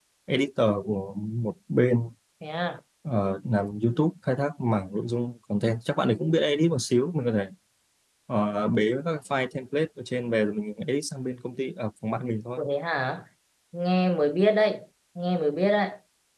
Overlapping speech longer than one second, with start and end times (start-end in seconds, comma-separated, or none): none